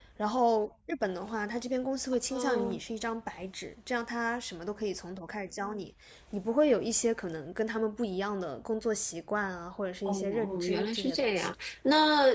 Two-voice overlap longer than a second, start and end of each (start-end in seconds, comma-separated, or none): 10.0-11.5